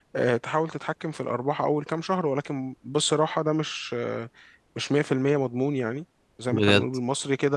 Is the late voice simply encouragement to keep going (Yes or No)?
Yes